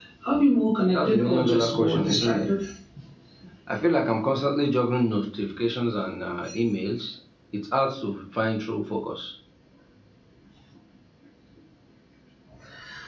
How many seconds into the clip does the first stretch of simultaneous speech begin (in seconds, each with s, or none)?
0.9 s